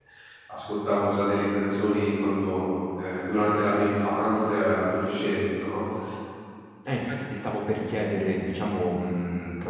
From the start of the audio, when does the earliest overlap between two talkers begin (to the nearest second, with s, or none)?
none